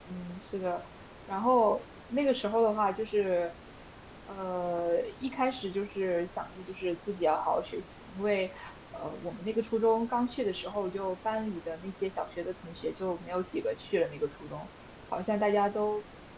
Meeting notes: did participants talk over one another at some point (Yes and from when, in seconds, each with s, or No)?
No